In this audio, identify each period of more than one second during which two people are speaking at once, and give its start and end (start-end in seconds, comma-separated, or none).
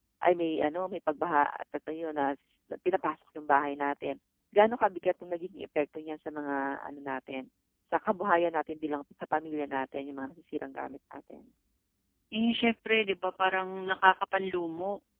none